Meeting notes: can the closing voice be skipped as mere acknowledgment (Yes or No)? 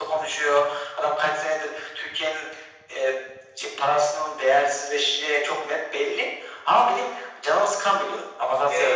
No